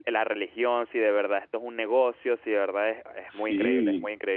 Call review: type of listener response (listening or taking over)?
taking over